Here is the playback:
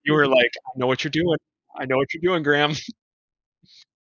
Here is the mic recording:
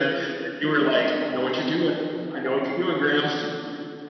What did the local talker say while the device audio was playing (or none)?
none